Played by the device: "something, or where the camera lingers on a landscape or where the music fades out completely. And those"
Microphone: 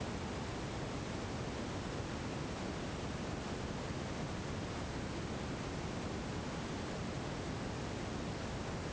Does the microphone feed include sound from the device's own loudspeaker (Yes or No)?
No